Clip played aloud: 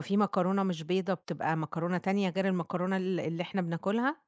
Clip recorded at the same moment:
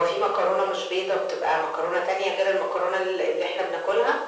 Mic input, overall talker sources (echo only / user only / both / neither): echo only